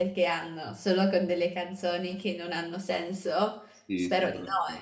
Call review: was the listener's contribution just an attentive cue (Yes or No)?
No